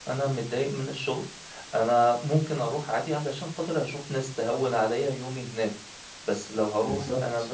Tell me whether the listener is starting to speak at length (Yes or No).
No